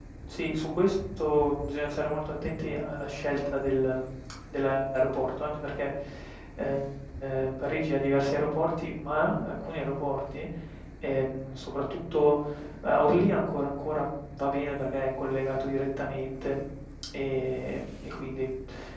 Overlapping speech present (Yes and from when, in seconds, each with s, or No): No